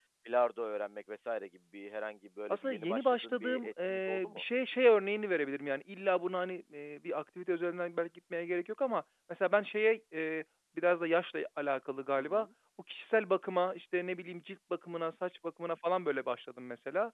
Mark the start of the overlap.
2.5 s

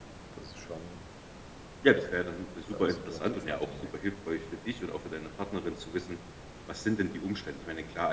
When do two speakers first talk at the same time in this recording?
2.7 s

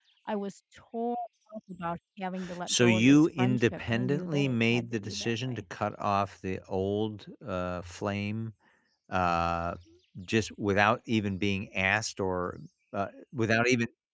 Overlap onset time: 2.7 s

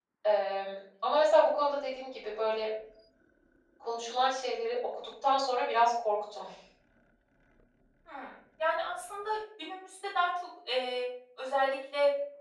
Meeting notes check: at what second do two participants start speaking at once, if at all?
none

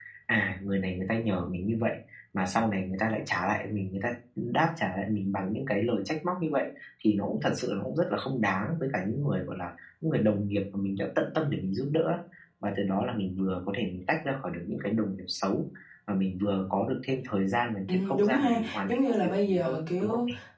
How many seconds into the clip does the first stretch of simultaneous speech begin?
17.9 s

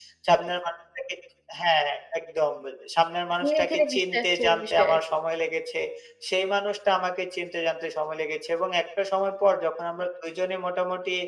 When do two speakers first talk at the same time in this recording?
3.4 s

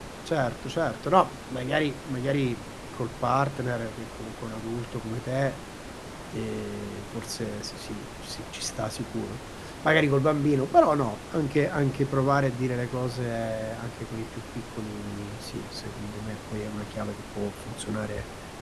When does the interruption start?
none

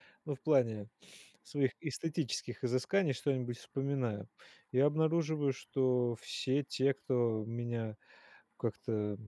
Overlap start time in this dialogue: none

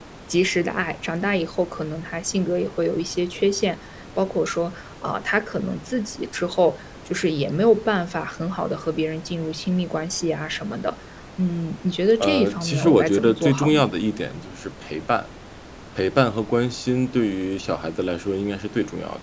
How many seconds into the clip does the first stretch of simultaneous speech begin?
12.2 s

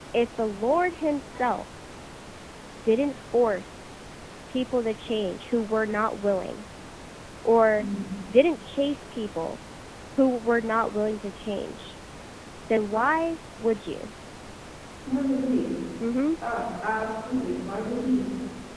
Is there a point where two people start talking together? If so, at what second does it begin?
none

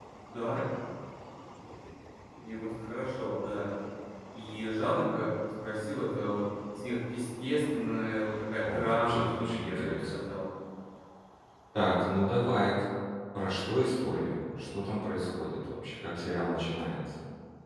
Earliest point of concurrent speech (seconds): 8.6 s

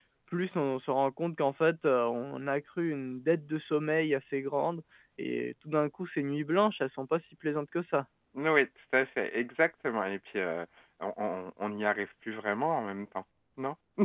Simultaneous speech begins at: none

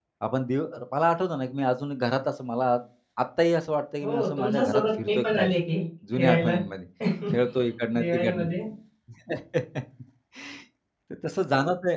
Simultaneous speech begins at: 4.0 s

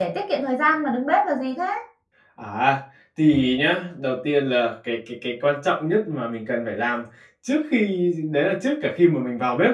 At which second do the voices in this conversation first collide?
none

